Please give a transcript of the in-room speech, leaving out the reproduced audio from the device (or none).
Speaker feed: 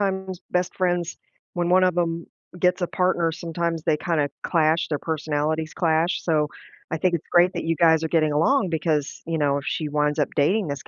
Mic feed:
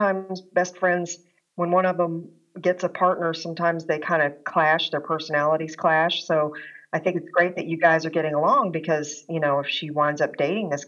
none